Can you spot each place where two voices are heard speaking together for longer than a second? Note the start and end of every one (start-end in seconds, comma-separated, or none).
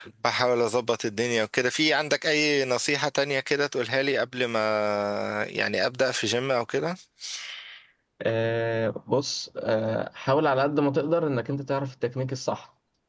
none